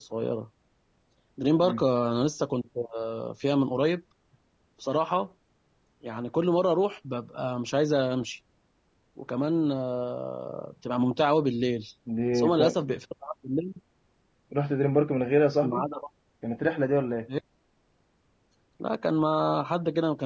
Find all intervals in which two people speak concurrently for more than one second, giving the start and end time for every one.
none

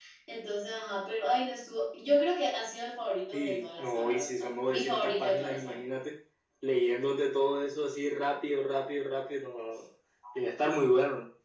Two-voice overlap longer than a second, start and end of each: 3.3-5.8

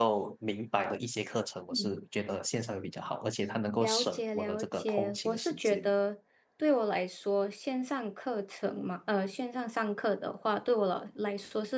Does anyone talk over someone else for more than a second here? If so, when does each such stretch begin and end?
3.8-5.8

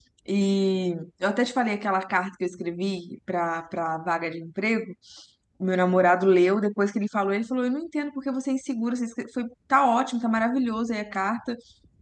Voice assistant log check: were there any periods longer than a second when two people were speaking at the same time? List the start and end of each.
none

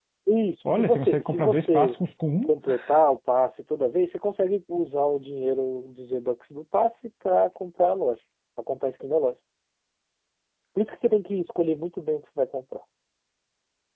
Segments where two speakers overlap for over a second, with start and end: 0.6-2.0

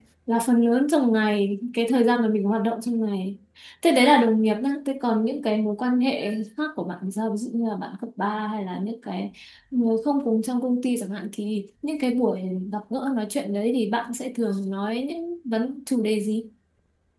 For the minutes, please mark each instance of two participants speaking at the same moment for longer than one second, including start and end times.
none

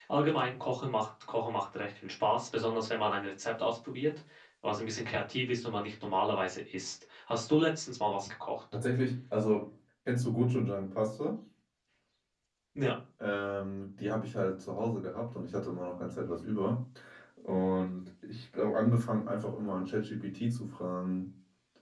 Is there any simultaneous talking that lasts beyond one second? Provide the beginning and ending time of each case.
none

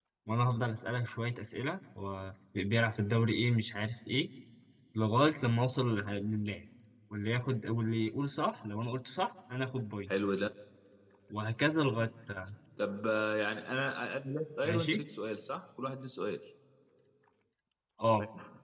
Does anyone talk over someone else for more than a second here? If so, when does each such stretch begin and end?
none

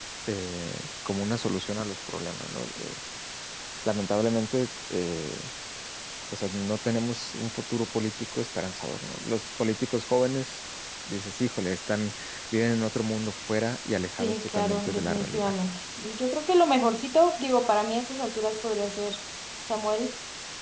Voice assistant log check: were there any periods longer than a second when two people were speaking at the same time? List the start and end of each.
14.2-15.5

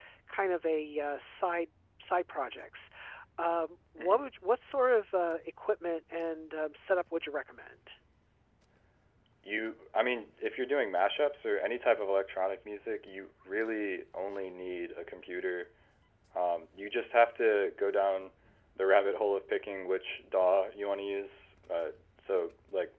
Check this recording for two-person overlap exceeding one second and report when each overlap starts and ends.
none

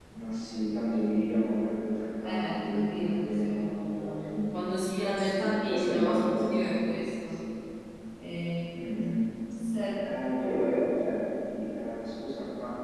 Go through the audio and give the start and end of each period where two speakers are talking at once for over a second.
2.2-4.5, 5.2-6.6

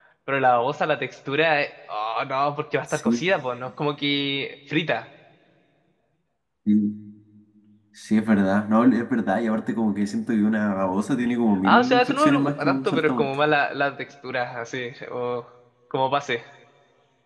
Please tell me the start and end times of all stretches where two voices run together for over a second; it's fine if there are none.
11.6-13.3

